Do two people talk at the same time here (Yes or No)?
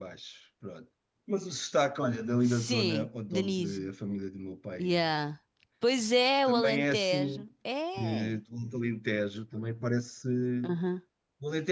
Yes